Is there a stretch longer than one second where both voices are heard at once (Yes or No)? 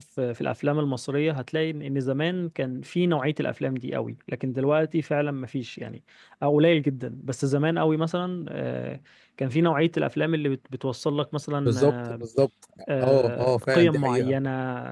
Yes